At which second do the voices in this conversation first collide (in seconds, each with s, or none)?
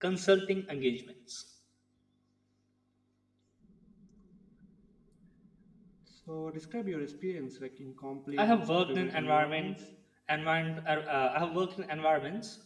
8.4 s